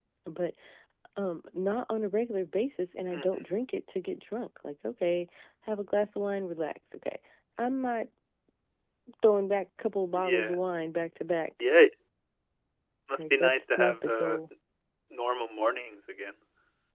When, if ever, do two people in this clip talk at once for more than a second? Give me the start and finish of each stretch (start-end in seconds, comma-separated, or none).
13.2-14.4